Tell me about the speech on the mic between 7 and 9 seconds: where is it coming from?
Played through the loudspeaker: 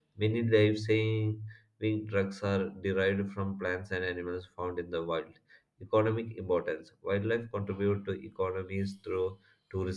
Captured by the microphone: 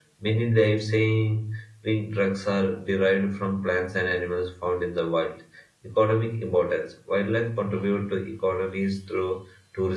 echo only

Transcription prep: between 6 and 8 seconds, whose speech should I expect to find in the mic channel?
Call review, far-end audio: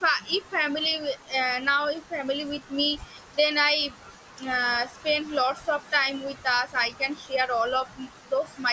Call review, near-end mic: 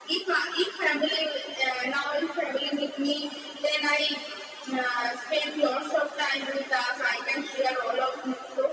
echo only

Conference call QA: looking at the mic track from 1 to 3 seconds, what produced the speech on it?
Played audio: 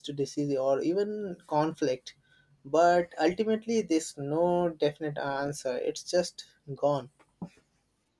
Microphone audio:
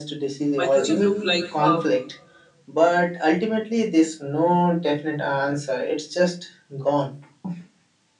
both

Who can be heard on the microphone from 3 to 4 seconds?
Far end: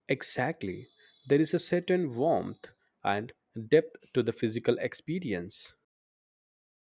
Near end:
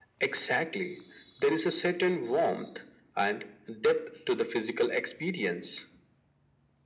echo only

